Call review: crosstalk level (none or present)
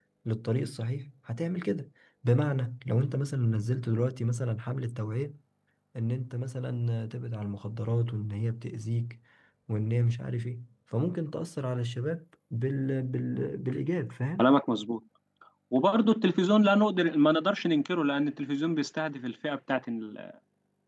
none